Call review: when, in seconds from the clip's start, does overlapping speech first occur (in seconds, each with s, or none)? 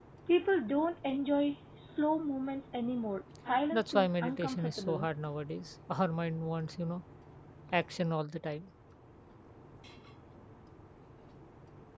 3.7 s